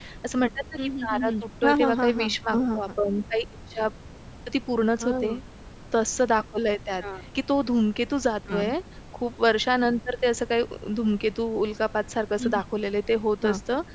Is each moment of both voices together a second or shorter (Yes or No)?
No